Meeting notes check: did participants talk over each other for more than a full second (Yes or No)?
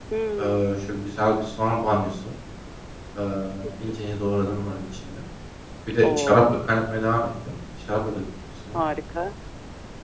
No